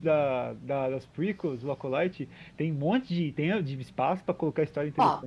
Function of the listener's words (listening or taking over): taking over